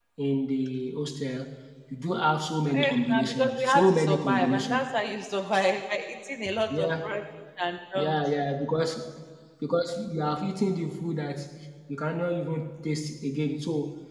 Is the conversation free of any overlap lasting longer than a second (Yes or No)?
No